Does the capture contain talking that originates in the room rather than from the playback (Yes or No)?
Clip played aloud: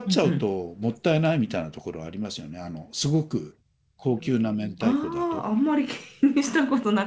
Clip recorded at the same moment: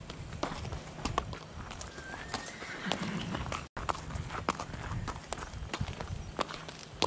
No